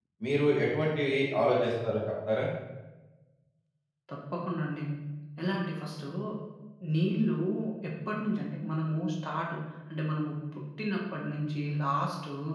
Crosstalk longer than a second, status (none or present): none